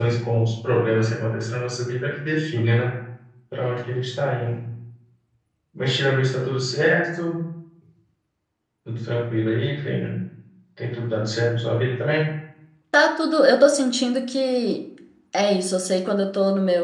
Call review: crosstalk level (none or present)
none